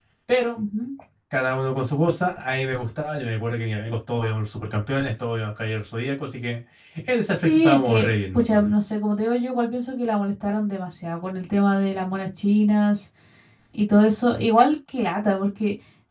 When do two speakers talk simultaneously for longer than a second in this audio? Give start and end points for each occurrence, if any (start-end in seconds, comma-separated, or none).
7.4-8.7